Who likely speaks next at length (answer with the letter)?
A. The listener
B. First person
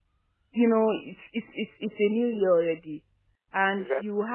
B